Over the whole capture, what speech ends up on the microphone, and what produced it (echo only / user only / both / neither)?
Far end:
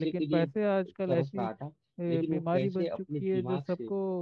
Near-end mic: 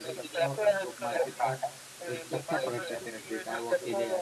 both